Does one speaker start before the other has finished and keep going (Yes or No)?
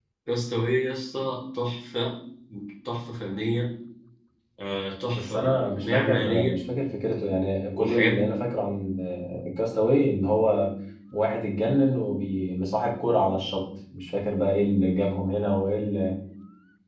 Yes